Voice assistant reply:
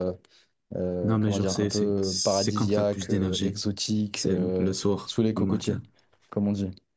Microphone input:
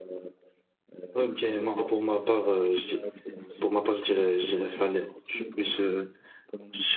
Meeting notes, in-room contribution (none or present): present